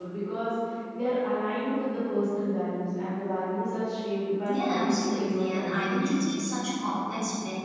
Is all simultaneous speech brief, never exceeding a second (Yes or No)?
No